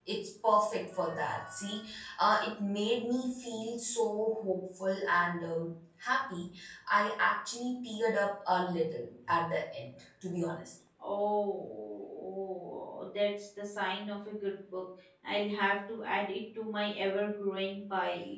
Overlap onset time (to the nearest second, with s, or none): none